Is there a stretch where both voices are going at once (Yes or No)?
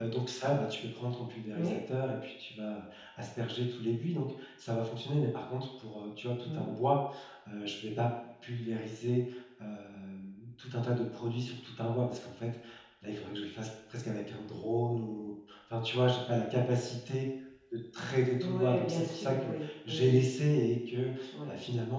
Yes